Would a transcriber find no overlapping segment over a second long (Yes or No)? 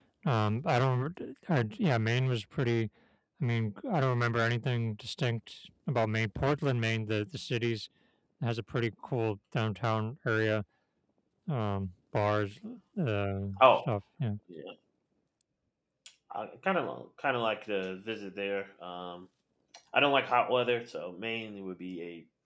Yes